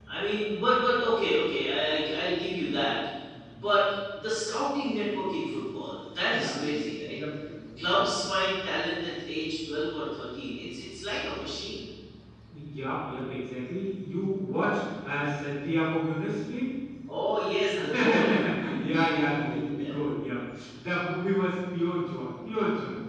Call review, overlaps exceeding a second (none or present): present